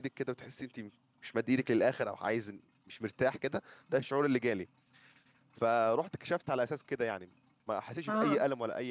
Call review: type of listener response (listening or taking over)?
listening